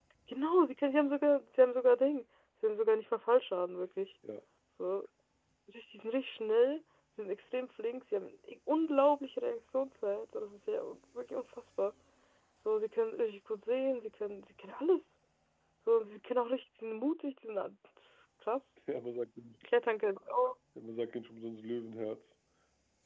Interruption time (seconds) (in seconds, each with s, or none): none